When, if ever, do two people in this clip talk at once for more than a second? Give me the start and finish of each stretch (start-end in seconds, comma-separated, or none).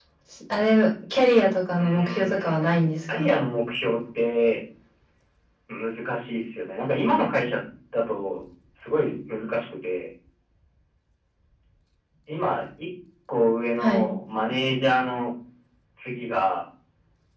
1.8-3.3